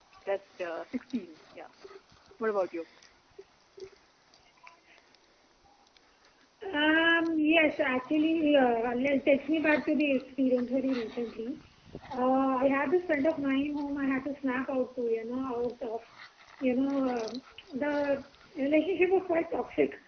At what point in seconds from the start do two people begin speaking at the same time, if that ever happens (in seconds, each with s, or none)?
none